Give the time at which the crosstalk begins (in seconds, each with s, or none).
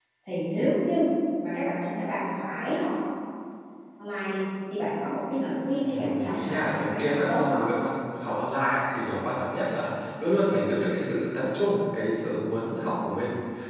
5.8 s